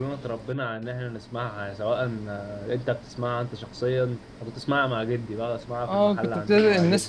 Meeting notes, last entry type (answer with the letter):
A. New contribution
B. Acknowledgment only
A